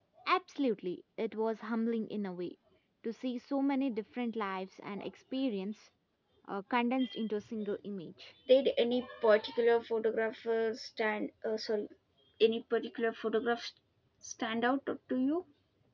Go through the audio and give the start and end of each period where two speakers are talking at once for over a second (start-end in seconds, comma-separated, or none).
none